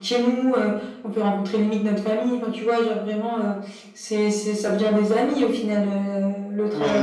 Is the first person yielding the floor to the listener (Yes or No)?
Yes